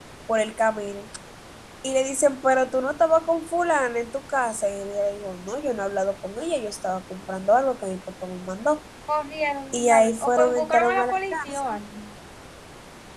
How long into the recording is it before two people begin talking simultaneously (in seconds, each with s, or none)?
9.7 s